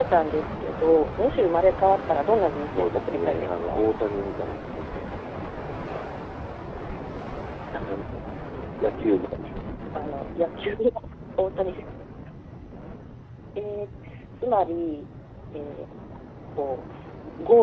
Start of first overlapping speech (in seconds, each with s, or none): 2.6 s